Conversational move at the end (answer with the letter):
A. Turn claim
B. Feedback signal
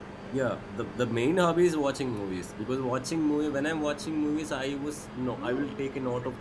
B